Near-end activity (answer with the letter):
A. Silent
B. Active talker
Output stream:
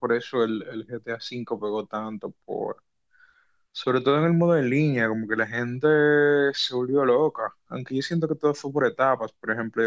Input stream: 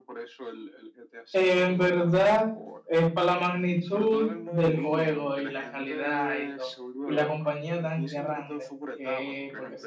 B